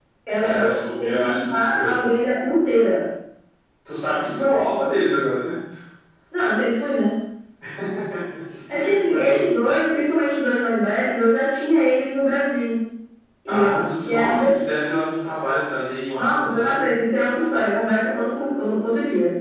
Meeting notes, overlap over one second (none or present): present